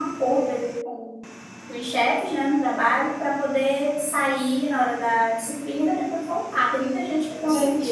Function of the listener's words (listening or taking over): taking over